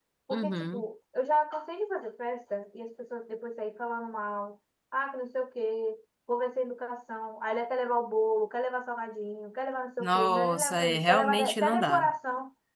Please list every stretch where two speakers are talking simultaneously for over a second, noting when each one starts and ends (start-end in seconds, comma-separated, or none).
10.0-12.1